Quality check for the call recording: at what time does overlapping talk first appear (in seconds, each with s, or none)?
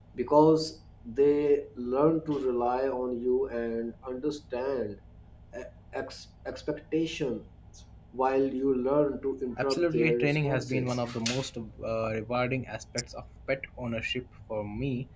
9.6 s